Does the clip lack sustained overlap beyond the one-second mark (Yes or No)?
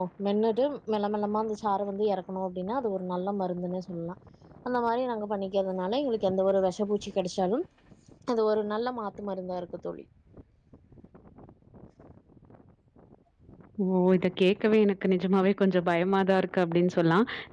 Yes